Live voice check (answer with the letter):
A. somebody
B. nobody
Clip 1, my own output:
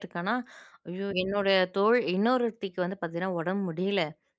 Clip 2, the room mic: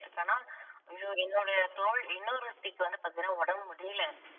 B